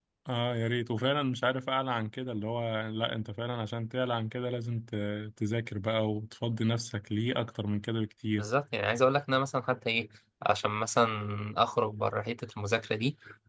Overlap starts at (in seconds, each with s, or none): none